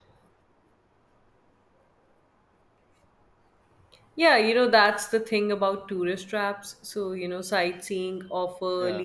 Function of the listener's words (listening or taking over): listening